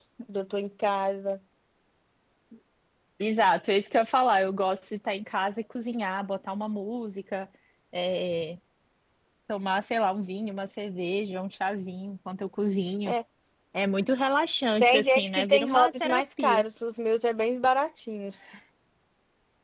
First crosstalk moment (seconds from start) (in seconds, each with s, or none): 14.8 s